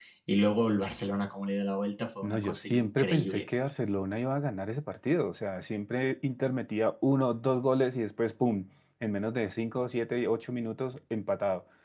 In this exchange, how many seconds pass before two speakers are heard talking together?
2.2 s

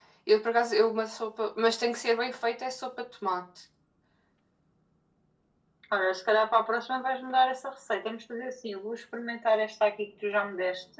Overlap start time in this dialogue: none

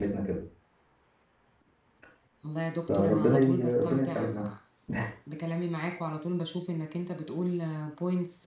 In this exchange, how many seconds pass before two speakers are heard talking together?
2.9 s

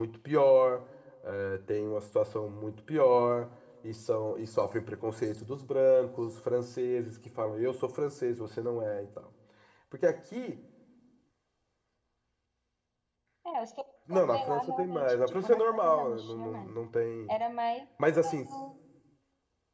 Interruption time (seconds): 14.1 s

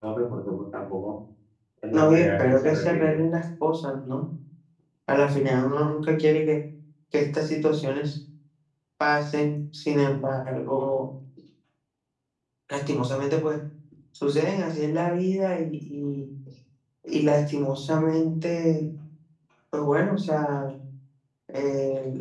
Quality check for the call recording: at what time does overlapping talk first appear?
1.9 s

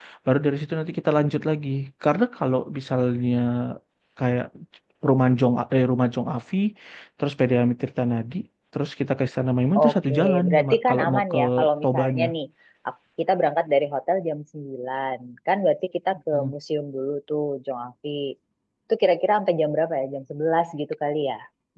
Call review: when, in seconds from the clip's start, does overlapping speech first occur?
9.8 s

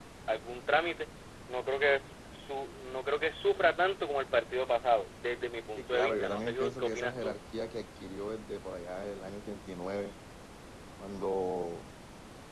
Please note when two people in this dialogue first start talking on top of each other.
5.8 s

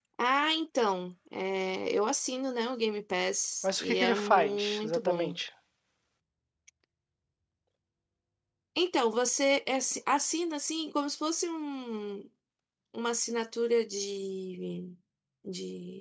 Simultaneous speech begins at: 3.6 s

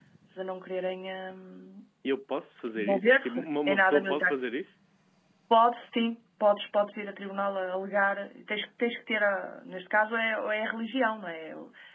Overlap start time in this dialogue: 2.8 s

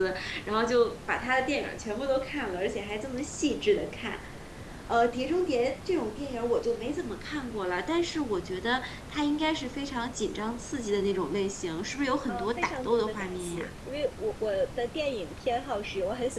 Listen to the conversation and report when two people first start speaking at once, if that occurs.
12.3 s

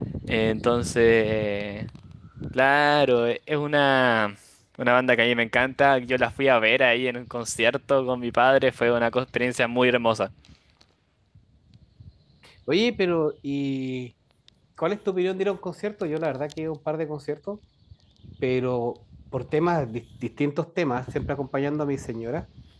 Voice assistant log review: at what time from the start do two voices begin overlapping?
none

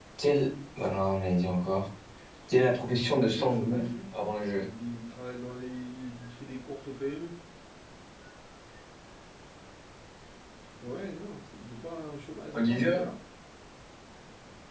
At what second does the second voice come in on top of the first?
2.6 s

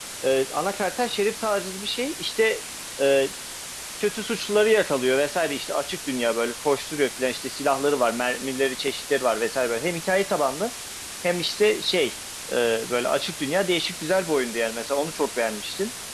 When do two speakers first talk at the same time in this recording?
none

